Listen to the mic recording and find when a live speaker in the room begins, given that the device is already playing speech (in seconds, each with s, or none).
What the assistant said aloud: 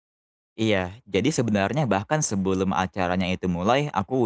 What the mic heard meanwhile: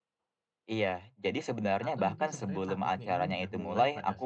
1.8 s